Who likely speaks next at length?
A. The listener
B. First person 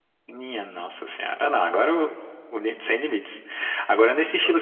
B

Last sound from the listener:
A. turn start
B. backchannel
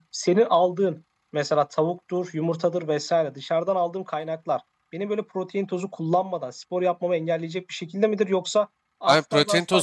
A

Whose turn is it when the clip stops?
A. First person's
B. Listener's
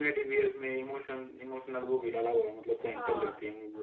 B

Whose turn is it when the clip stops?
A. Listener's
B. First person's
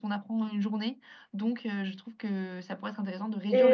A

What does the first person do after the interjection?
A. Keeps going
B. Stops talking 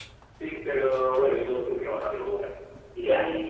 A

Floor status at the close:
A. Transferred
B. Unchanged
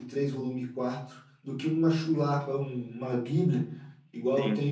B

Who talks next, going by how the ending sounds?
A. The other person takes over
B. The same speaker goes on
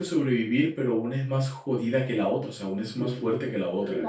A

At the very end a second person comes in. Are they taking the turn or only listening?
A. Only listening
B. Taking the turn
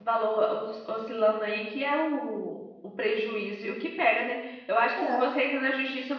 A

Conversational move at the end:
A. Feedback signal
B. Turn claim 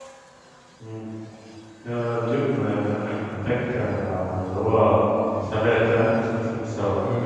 B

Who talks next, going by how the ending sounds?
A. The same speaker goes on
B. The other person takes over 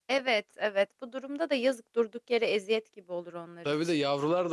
B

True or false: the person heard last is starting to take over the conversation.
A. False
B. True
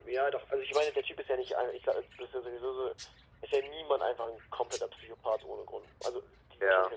A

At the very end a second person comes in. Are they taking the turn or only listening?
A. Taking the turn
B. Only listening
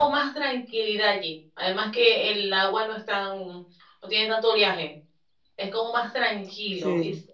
B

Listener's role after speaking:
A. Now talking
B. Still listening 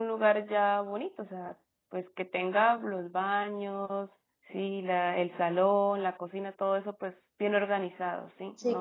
A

